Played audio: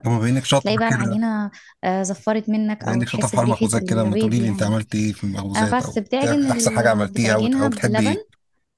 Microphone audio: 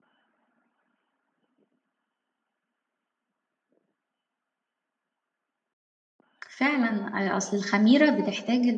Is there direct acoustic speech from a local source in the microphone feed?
Yes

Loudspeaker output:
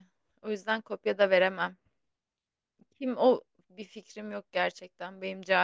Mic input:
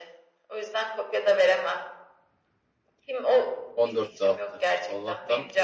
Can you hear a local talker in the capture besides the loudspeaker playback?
Yes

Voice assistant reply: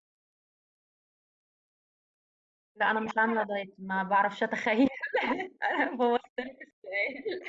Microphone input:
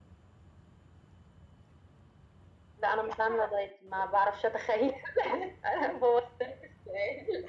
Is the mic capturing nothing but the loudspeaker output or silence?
Yes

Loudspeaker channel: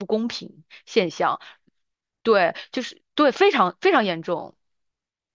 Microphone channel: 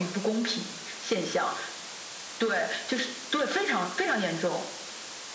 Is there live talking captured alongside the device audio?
No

